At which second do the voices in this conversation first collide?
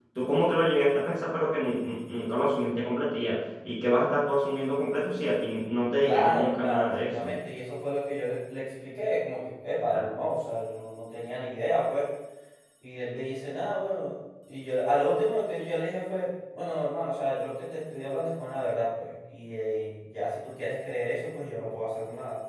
6 s

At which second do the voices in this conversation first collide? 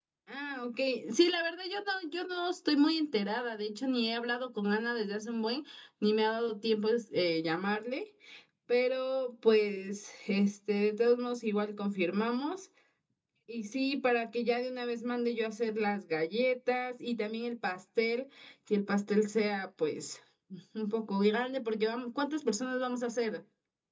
none

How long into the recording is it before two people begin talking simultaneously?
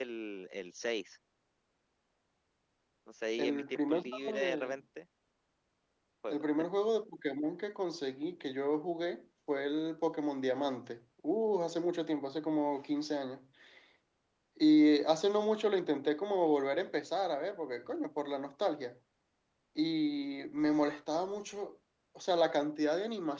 3 s

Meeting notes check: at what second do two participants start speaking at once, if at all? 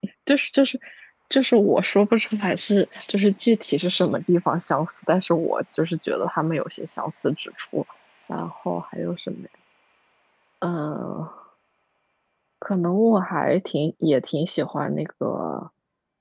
none

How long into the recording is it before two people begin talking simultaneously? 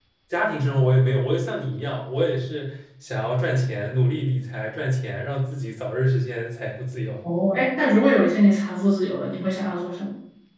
none

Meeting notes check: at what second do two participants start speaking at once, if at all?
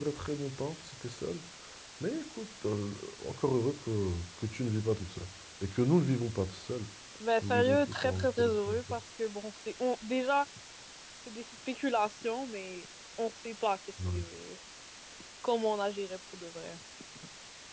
7 s

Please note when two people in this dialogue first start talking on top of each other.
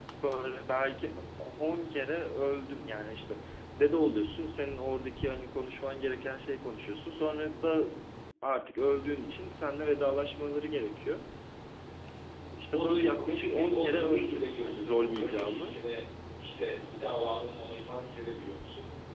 13 s

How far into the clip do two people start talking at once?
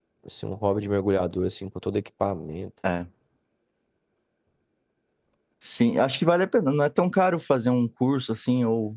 none

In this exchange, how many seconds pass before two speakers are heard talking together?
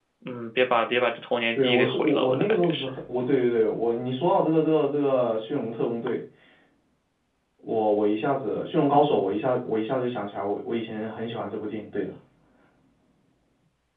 2 s

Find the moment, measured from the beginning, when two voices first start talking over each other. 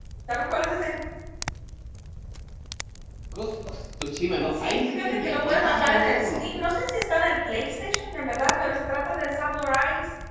5 s

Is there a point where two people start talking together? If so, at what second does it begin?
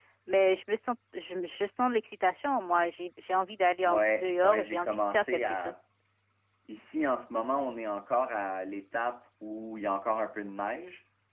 4 s

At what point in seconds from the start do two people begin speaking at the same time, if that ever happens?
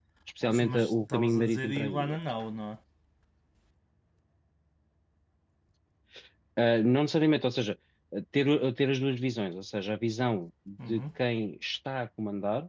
1 s

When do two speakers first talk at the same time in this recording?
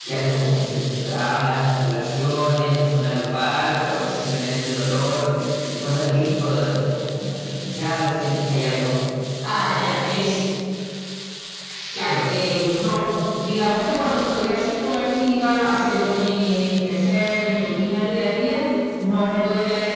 none

